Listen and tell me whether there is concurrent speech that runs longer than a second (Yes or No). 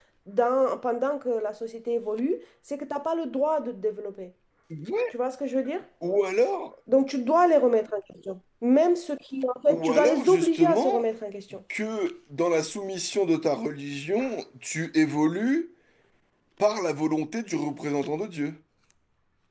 Yes